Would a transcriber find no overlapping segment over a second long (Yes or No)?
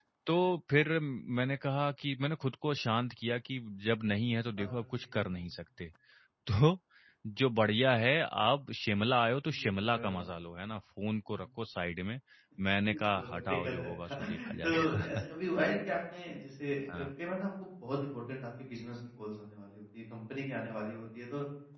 No